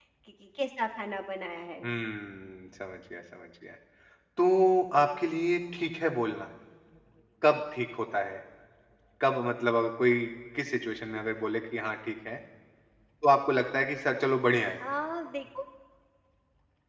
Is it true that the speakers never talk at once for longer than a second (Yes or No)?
Yes